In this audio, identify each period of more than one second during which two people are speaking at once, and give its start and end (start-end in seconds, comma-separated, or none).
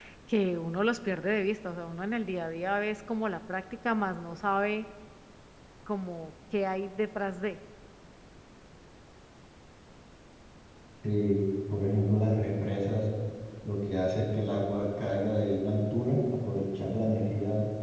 none